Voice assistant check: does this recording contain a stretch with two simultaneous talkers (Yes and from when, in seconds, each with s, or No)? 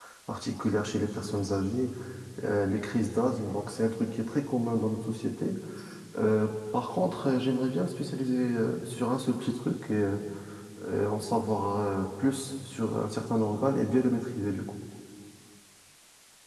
No